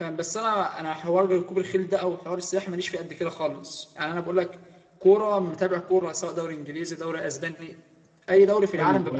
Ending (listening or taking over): taking over